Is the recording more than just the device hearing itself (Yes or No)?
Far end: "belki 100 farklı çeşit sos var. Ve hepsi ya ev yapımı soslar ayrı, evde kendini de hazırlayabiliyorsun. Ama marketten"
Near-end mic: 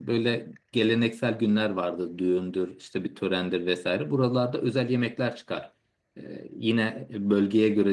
Yes